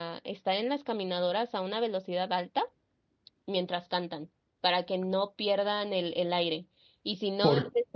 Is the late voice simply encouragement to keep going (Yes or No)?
Yes